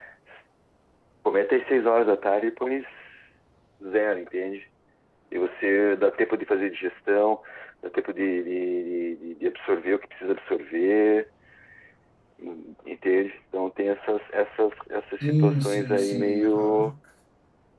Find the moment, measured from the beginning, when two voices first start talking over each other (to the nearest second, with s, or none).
15 s